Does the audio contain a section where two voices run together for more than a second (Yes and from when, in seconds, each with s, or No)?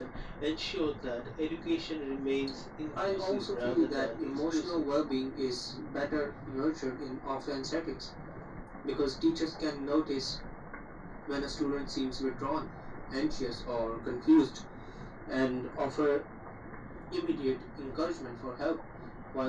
Yes, from 3.0 s